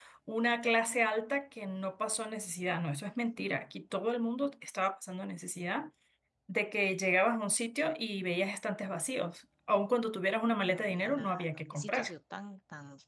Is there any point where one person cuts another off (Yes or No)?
Yes